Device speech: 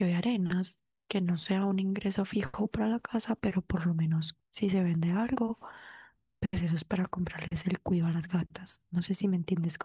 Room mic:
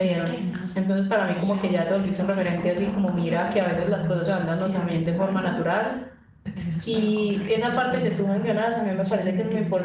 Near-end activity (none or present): present